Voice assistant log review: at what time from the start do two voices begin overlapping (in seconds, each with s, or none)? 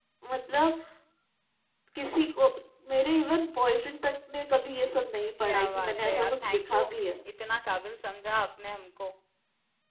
5.4 s